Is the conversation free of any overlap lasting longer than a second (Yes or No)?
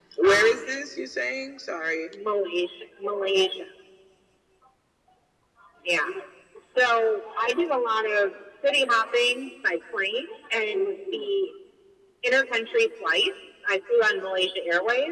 Yes